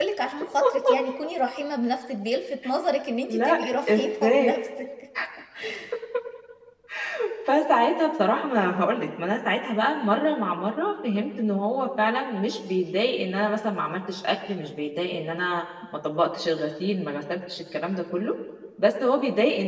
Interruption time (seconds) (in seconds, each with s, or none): 3.3 s